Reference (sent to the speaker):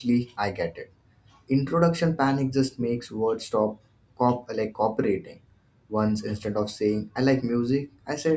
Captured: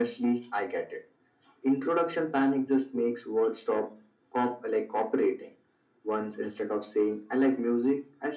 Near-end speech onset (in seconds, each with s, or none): none